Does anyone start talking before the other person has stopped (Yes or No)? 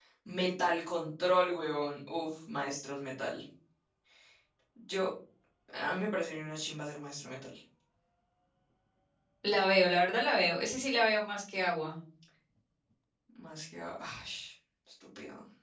No